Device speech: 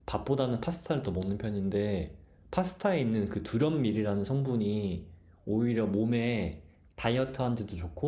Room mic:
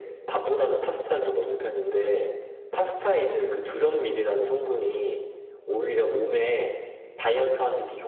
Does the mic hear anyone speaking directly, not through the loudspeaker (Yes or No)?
No